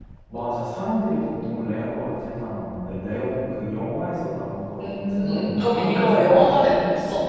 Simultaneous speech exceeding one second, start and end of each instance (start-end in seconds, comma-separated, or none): 4.8-6.7